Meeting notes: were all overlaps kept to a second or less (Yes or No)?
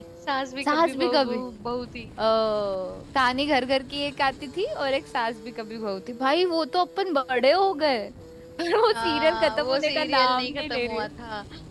No